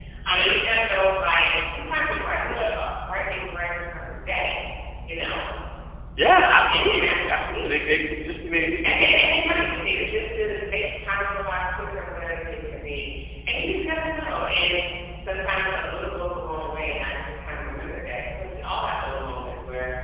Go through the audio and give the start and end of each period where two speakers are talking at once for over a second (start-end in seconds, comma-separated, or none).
6.4-7.9